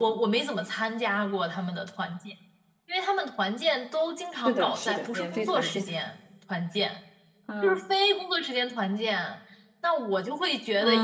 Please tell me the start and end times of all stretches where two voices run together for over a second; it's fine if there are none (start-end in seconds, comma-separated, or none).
4.3-5.8